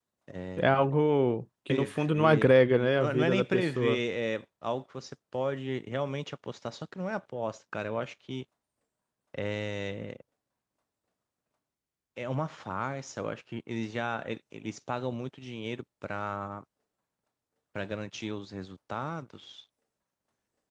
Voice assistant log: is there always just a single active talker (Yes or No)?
No